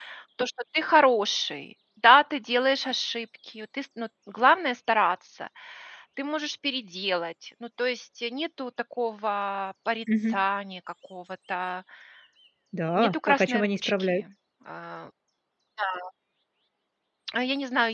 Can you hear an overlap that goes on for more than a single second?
Yes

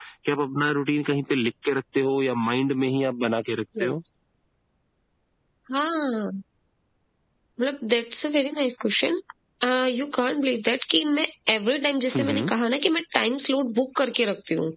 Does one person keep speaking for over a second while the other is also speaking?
No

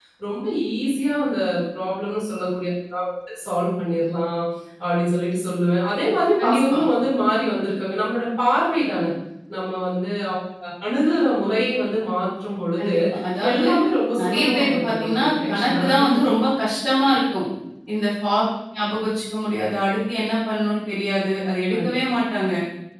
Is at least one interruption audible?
Yes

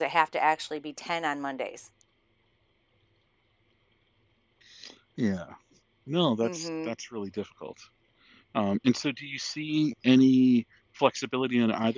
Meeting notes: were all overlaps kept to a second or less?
Yes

